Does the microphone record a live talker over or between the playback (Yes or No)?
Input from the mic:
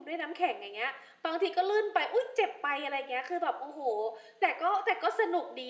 No